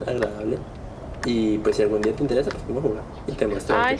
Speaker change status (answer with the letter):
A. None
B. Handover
B